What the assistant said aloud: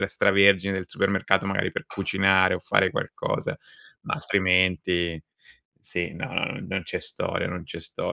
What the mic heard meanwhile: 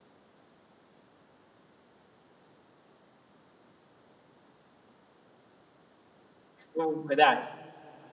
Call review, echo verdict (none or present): none